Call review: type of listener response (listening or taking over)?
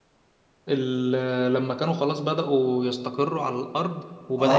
taking over